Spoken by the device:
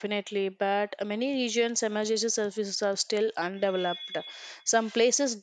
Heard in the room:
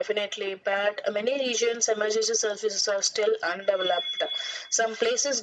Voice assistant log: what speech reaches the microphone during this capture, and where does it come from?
echo only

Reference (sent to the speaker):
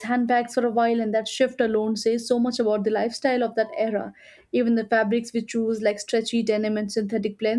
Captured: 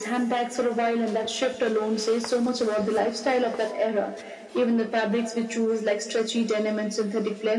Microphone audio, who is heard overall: echo only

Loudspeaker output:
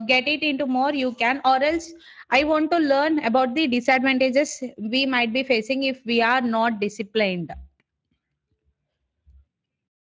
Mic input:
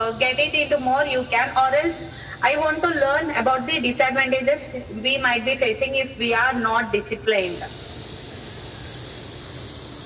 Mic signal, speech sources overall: echo only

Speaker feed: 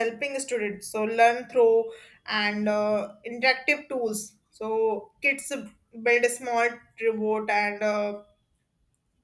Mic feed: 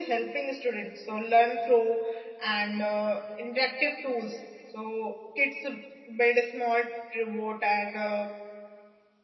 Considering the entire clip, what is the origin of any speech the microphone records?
echo only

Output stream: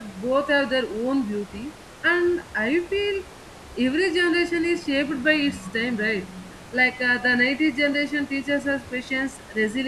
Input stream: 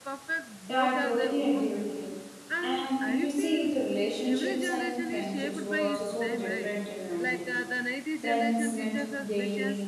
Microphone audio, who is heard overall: both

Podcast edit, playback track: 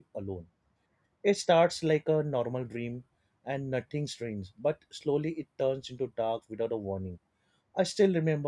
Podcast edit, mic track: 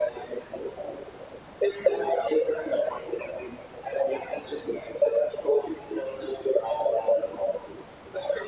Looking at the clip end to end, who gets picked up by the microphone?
echo only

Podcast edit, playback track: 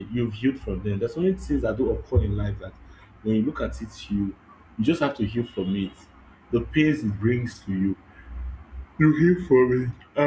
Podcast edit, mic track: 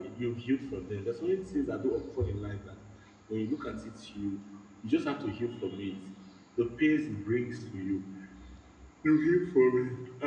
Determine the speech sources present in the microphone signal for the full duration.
echo only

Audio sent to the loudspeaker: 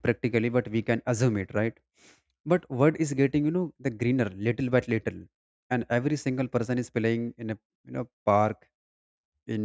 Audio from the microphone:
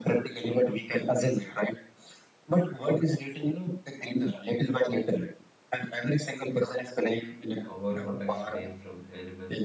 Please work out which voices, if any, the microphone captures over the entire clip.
both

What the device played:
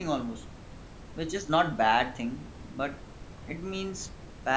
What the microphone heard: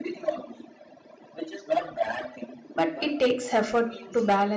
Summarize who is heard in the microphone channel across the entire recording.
both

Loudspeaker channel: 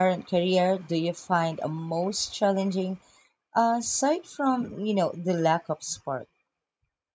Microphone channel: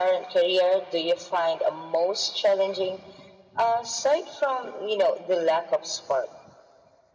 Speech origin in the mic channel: echo only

